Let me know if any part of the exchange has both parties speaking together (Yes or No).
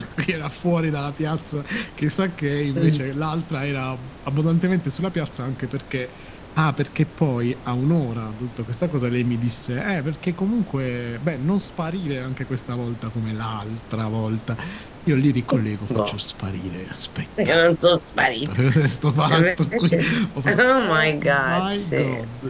Yes